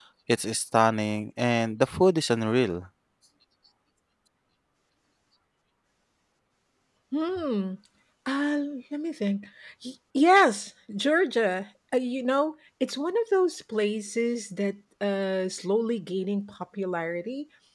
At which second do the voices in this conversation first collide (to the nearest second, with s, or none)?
none